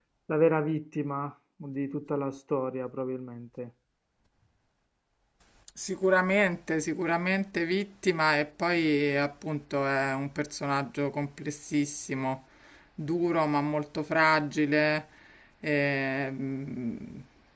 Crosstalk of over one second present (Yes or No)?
No